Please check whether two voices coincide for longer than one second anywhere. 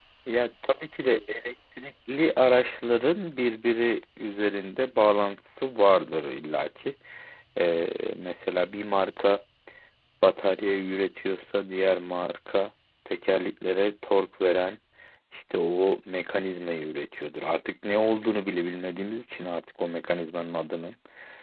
No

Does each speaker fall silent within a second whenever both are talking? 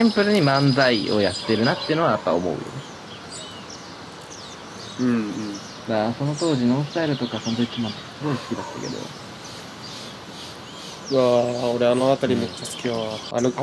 Yes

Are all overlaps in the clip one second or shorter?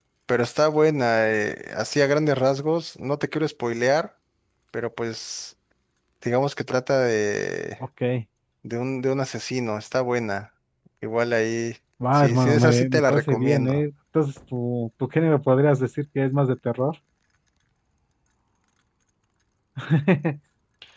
No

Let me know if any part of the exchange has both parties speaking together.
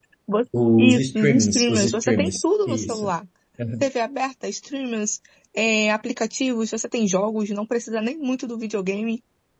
Yes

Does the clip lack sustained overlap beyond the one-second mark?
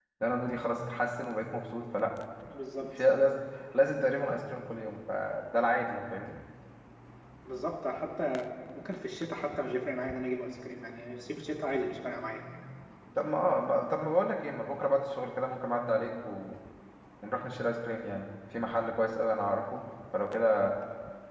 Yes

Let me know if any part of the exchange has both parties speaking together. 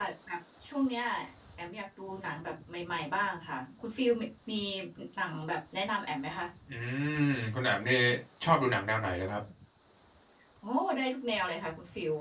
No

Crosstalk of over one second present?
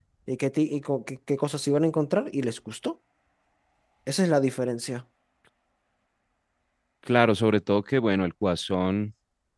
No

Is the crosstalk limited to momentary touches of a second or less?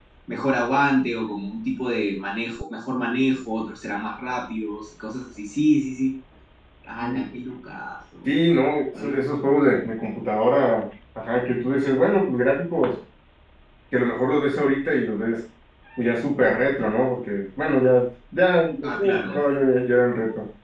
Yes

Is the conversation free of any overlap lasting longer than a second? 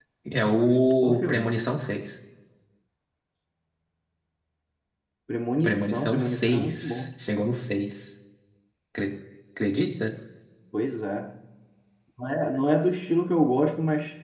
No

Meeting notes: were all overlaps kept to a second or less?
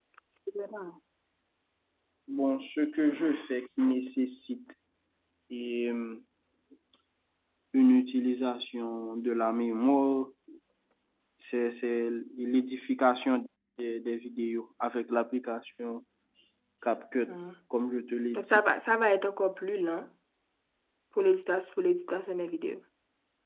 Yes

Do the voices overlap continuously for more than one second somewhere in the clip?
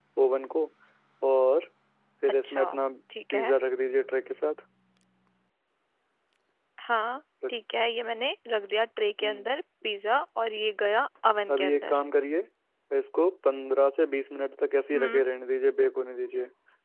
No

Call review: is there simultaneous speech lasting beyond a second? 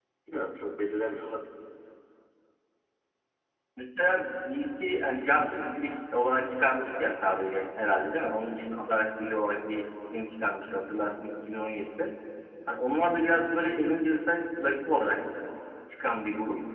No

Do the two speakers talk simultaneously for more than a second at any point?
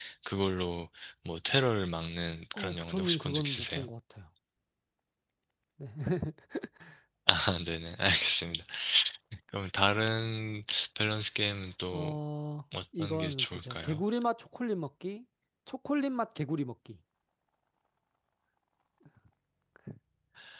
Yes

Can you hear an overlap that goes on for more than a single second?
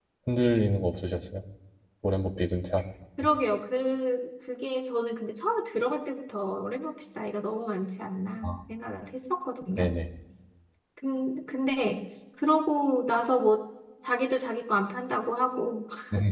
No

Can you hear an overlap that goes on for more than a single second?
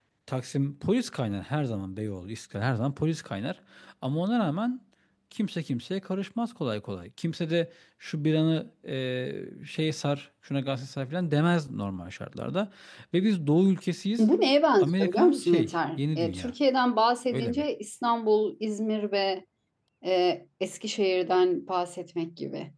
Yes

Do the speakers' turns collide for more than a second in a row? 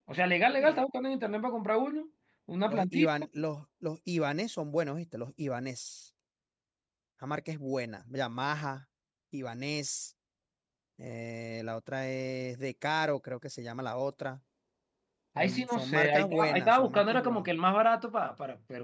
Yes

